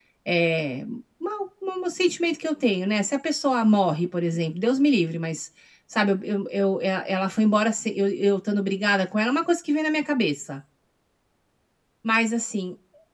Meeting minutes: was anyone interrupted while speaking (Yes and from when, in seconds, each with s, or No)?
No